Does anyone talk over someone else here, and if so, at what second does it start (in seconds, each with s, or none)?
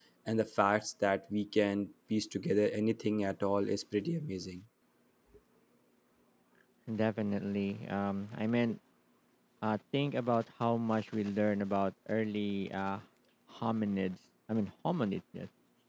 none